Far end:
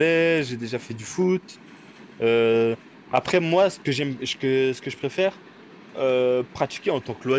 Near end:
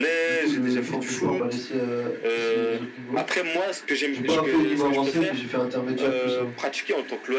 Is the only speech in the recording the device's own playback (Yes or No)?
No